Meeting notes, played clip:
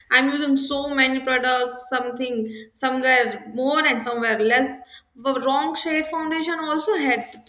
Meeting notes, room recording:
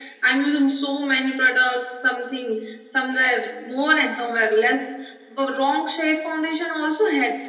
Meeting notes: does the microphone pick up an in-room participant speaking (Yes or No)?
No